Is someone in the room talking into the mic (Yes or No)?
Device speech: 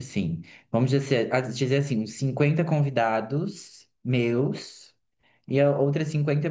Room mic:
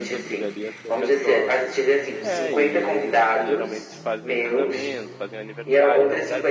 Yes